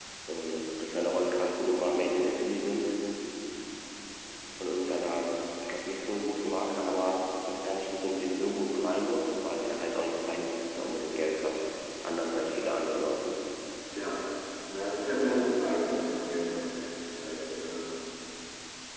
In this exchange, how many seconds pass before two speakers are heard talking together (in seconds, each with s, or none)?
none